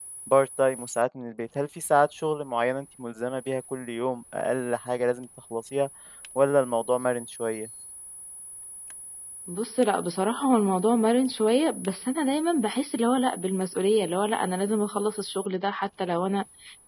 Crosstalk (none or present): none